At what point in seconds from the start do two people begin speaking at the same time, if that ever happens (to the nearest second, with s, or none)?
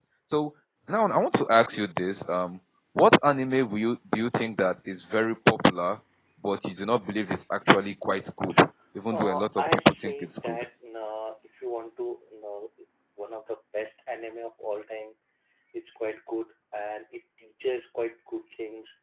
9 s